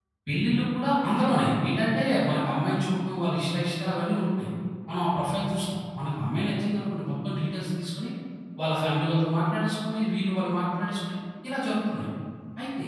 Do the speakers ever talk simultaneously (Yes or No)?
No